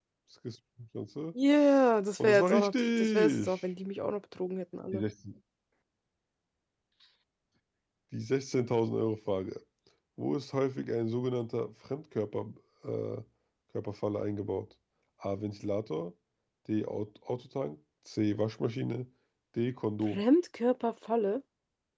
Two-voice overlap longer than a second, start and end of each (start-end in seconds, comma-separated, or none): 2.2-3.6